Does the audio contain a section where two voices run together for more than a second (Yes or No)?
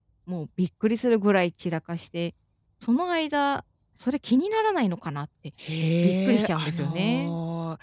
Yes